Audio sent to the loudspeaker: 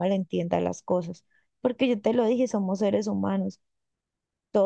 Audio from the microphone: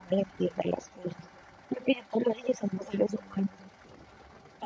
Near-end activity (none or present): none